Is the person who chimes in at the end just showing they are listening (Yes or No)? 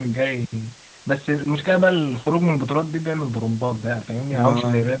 Yes